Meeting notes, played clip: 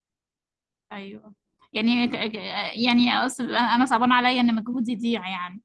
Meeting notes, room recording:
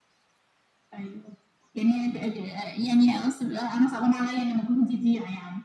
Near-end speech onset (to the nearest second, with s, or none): none